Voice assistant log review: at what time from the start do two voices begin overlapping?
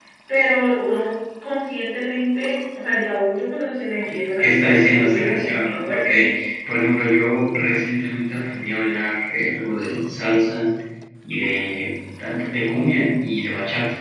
4.4 s

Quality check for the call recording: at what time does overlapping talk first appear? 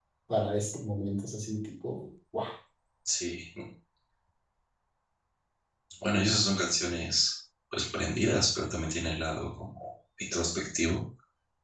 none

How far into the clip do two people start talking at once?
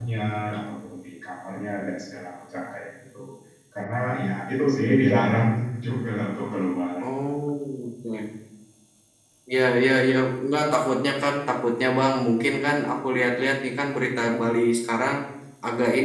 none

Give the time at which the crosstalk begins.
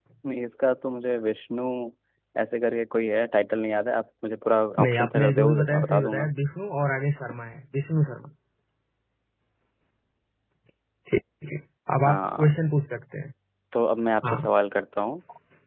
4.8 s

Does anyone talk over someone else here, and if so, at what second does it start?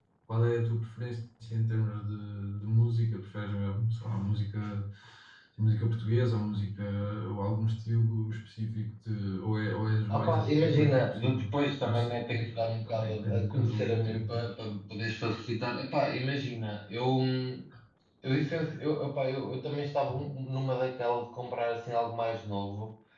10.1 s

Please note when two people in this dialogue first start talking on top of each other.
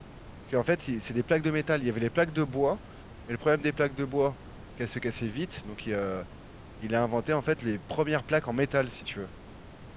none

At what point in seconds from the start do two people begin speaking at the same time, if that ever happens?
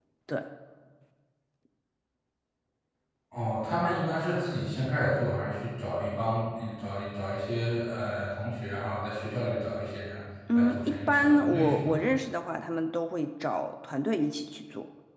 10.5 s

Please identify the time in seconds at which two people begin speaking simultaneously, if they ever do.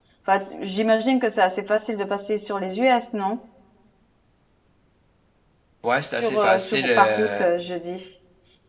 6.2 s

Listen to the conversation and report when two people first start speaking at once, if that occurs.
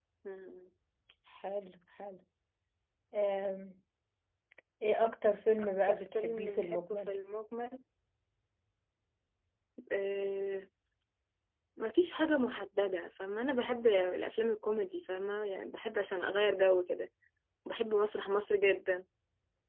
5.6 s

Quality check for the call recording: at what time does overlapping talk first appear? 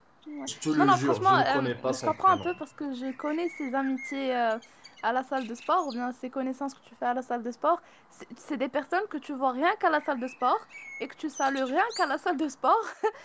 0.8 s

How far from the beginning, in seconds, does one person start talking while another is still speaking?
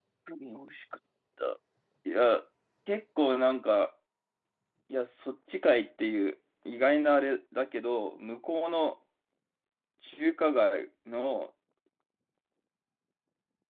none

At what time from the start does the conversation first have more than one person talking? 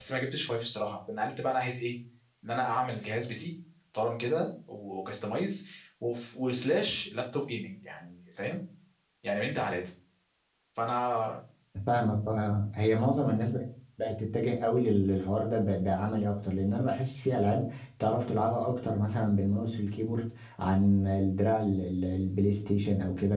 none

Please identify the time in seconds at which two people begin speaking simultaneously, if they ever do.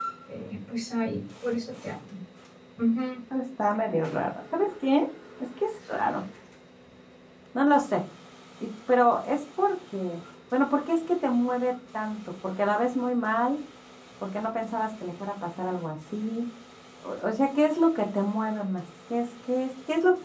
none

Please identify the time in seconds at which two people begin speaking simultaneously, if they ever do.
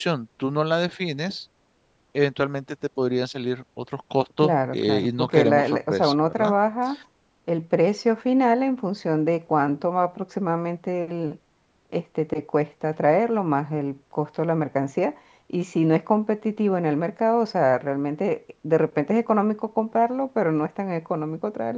4.4 s

